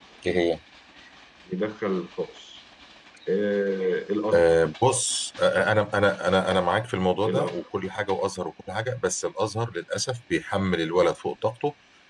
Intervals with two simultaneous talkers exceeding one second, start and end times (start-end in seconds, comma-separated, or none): none